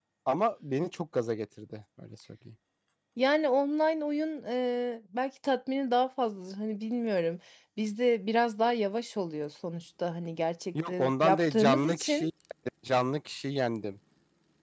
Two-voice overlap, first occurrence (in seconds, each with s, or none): 10.7 s